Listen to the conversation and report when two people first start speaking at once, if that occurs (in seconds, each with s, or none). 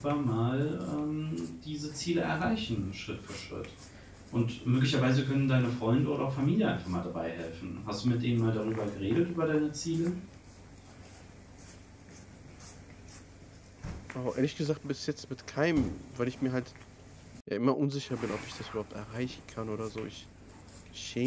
none